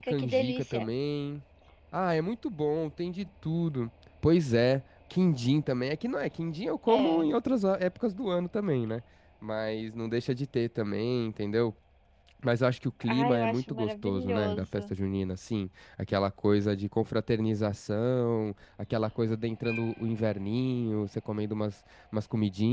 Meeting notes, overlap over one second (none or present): present